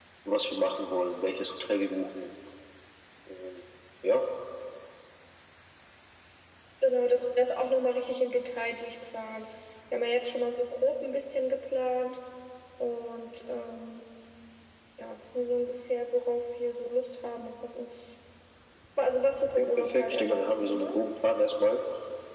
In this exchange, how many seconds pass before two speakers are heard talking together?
19.6 s

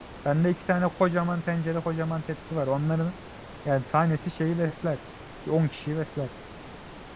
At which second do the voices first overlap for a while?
none

